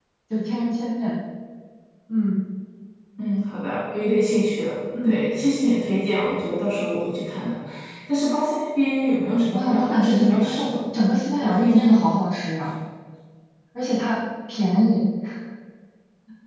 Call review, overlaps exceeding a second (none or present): present